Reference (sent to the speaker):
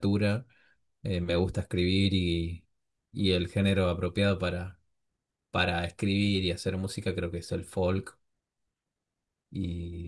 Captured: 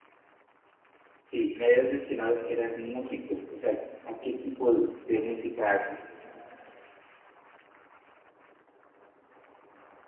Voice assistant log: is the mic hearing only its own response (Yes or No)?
No